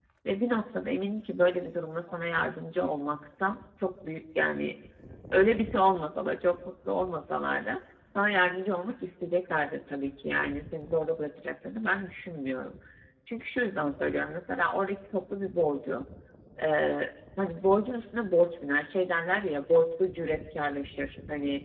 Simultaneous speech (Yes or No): No